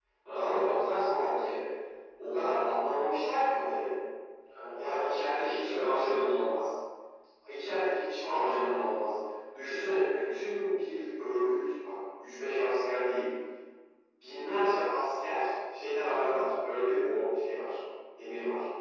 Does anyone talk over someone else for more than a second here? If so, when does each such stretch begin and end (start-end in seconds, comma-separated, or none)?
4.8-6.1